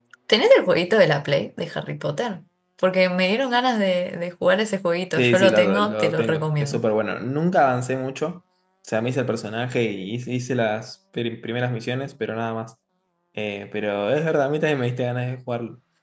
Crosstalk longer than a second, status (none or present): present